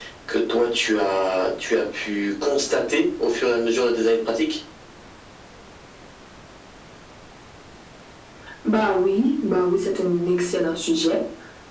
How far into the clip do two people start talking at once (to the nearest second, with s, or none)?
none